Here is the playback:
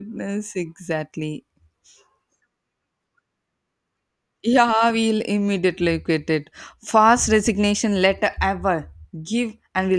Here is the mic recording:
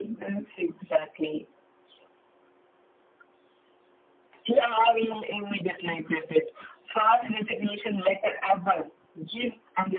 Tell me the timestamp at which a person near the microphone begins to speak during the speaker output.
none

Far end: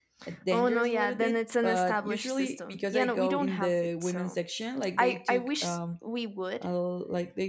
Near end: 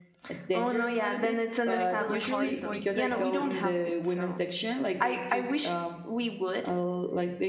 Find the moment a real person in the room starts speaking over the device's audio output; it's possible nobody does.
2 s

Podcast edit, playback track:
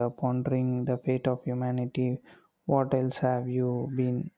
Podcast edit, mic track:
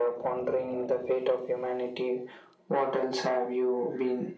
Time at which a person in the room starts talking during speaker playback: none

